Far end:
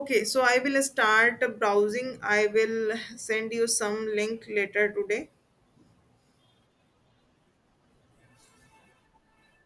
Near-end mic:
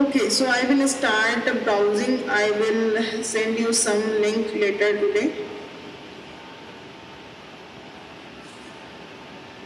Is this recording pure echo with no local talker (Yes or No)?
Yes